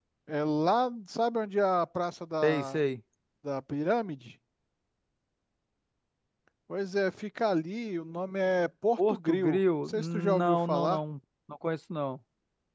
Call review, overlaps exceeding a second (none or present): present